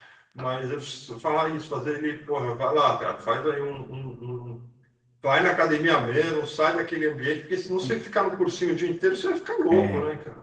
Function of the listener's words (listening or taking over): taking over